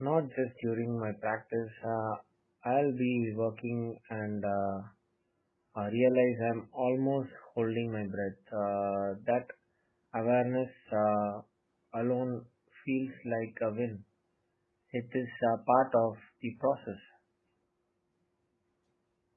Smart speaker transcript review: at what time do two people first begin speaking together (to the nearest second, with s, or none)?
none